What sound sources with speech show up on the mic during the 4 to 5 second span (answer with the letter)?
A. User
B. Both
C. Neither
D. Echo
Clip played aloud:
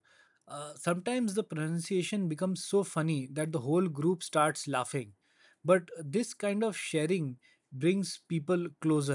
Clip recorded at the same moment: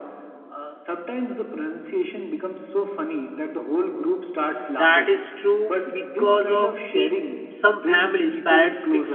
B